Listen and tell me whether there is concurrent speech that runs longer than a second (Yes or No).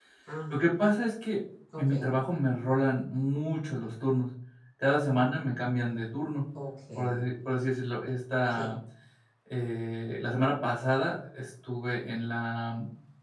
No